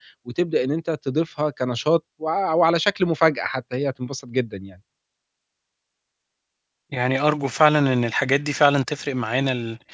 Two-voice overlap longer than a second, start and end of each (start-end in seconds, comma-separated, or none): none